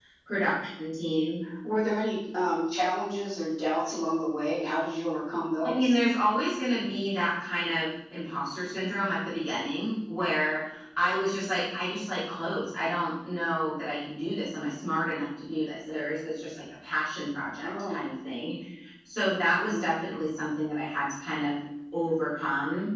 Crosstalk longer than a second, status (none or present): none